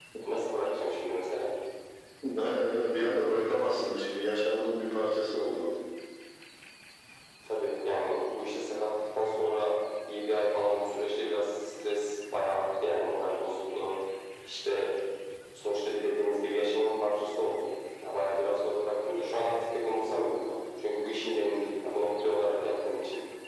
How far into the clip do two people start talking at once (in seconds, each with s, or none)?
none